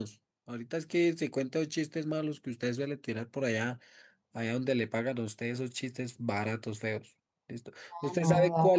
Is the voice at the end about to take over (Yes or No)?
No